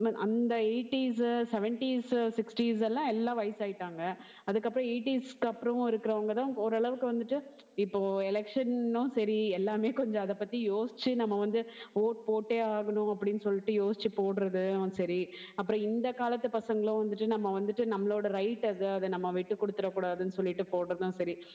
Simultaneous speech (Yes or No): No